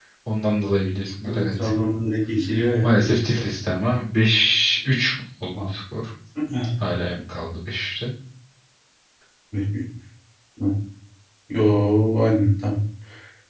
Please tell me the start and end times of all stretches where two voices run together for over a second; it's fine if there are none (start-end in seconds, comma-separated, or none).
none